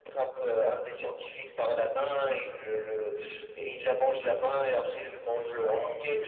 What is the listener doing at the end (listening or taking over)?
listening